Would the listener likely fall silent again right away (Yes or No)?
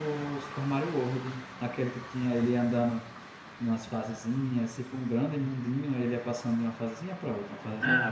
No